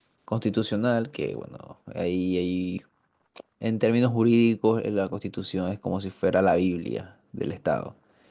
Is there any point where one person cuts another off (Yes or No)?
No